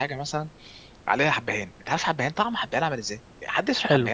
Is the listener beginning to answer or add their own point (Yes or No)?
Yes